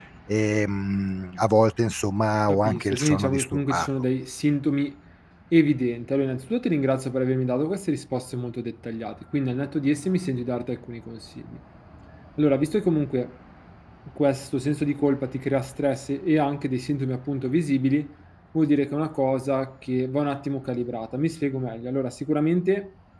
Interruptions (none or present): present